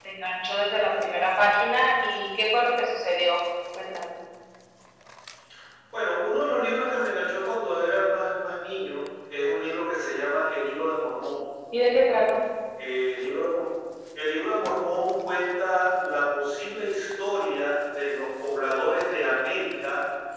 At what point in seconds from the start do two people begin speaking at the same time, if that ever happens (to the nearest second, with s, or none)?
none